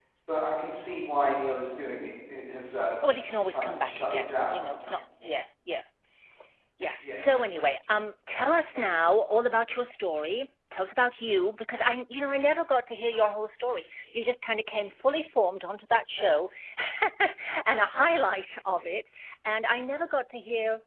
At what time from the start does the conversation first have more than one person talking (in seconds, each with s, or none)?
3.4 s